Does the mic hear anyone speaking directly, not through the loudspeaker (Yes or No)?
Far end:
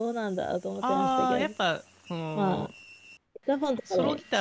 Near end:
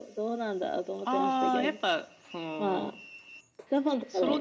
No